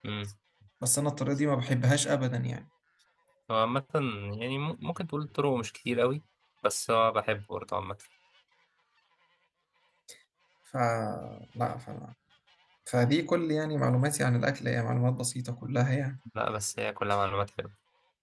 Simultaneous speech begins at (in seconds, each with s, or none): none